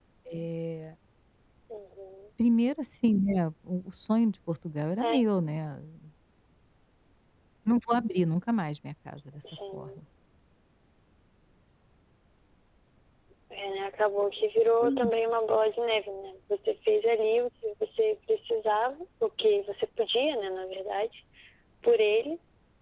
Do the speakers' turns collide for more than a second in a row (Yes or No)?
No